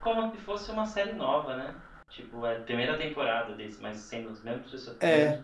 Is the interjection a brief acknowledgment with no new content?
No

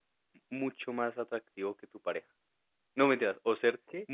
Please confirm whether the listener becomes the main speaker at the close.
No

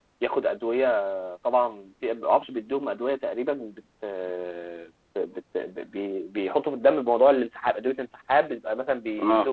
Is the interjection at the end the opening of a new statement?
No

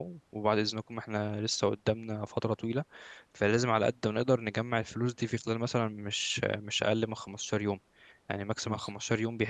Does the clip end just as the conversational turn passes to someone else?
No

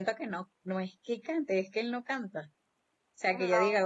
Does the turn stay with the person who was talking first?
Yes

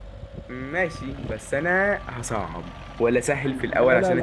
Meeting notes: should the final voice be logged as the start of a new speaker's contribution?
Yes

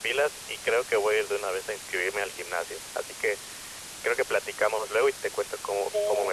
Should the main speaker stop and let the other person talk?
Yes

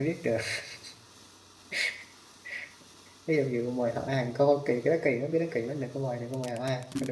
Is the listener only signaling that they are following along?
No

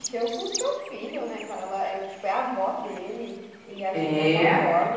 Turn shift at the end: No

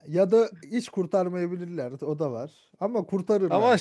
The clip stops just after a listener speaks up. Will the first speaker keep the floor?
No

